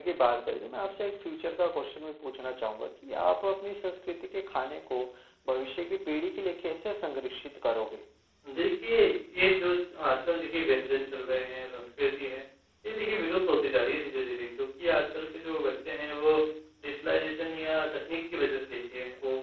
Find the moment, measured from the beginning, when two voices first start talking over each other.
none

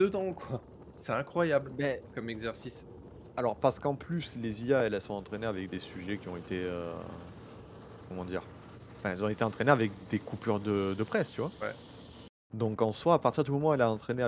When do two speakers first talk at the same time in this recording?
none

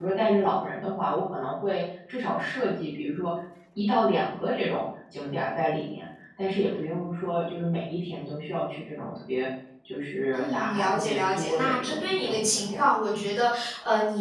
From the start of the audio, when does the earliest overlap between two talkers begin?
10.3 s

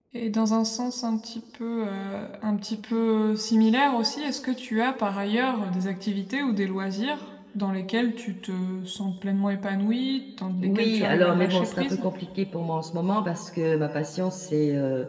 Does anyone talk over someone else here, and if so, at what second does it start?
10.6 s

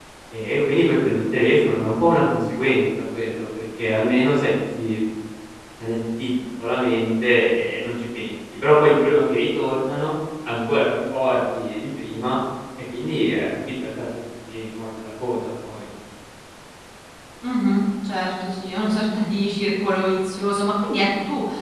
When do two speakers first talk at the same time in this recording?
none

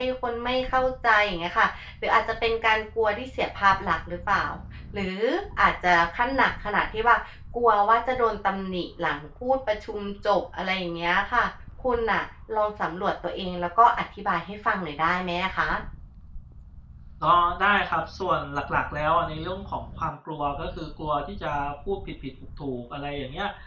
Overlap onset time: none

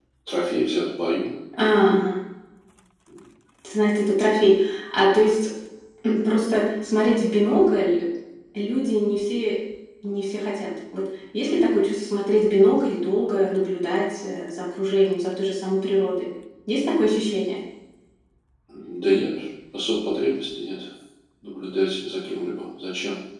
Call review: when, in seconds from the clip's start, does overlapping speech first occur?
none

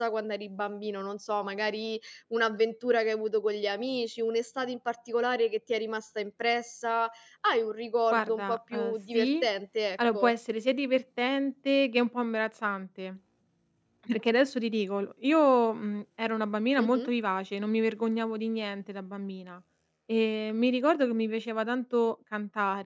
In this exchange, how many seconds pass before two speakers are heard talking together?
8.1 s

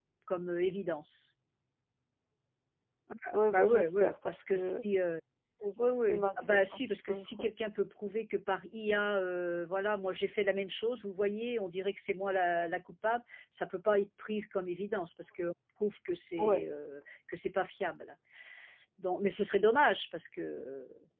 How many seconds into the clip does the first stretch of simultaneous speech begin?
3.5 s

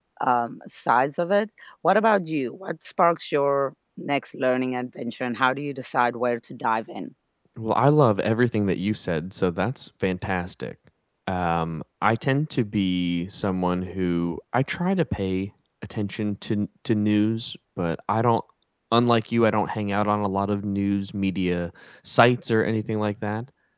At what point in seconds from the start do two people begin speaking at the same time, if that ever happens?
none

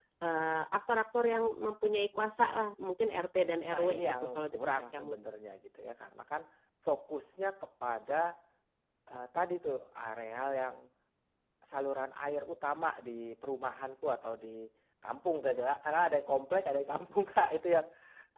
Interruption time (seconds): 3.7 s

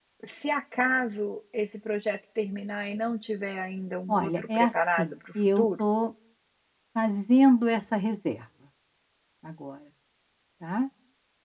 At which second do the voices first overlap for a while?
4.1 s

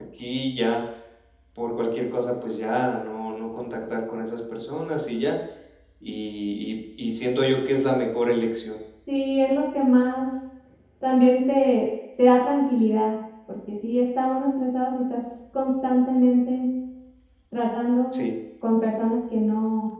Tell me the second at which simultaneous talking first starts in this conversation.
none

